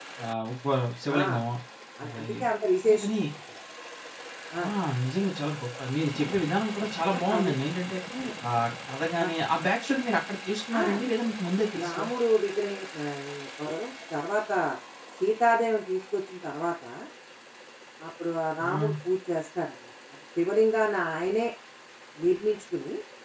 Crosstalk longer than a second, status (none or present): none